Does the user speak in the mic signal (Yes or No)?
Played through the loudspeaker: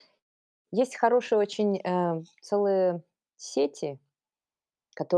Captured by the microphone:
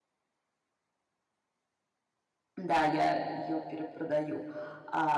Yes